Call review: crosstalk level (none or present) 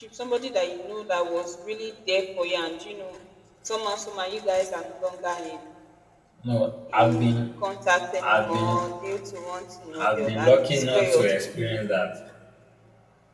present